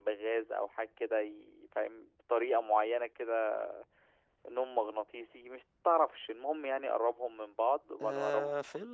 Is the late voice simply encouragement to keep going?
No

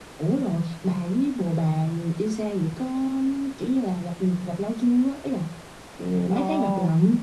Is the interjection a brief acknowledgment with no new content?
No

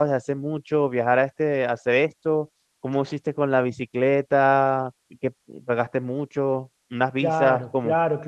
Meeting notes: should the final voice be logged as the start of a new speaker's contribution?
Yes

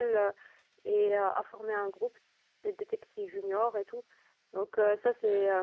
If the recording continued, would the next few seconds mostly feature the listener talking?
No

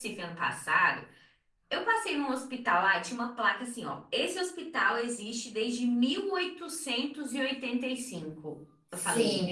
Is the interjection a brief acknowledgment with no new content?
No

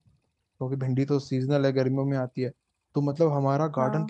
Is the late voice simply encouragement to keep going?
Yes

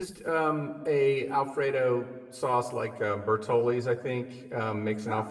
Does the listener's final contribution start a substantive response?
No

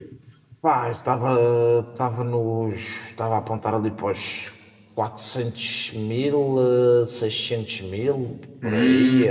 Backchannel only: No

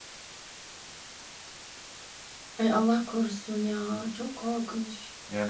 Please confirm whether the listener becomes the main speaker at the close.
Yes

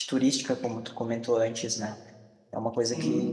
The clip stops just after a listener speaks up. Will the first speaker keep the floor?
Yes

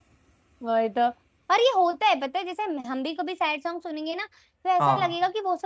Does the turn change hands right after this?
No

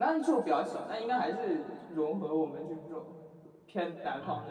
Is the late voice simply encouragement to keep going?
No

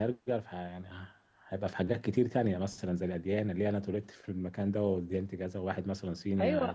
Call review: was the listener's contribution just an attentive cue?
No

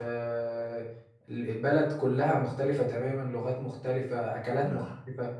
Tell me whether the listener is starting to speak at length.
No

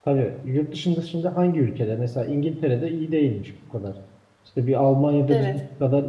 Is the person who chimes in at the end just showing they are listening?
Yes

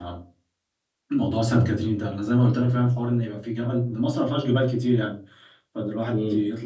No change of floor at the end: Yes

